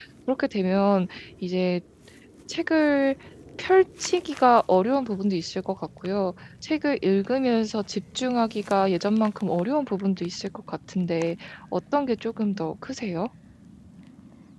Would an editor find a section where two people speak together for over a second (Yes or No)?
No